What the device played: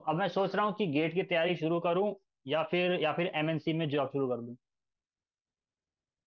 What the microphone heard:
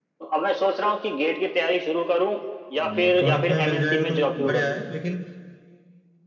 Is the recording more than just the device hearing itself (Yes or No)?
Yes